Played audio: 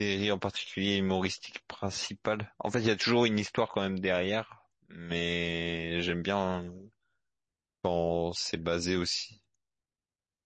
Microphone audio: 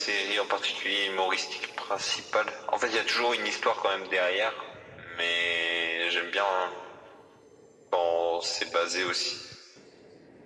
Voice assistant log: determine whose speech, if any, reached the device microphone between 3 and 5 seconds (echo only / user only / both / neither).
echo only